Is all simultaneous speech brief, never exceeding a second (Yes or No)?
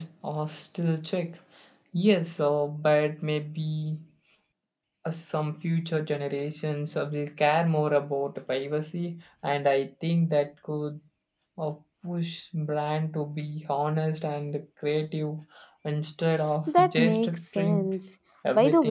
No